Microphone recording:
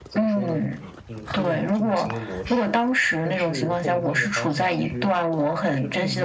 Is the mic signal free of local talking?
No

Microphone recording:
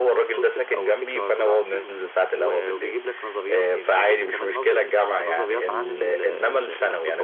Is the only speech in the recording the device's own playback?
Yes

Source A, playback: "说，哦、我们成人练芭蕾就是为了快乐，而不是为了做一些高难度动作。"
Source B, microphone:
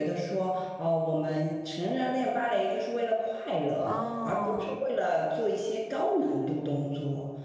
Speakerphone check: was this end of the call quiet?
No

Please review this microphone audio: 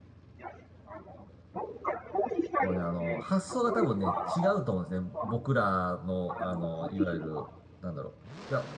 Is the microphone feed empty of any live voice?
No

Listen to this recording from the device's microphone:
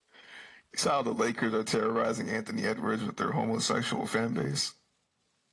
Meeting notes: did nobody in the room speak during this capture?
Yes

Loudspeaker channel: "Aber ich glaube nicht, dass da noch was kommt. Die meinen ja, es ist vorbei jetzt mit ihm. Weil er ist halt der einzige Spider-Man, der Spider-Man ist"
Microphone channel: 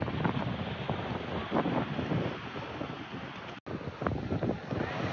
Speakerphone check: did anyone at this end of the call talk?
No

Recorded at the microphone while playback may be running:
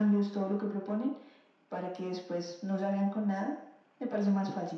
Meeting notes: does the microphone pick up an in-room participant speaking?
No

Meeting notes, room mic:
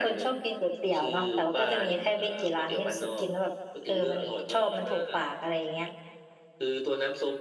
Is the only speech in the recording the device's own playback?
Yes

